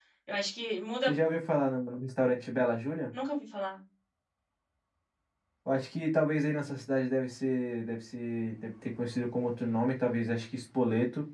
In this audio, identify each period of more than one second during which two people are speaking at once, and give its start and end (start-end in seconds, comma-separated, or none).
none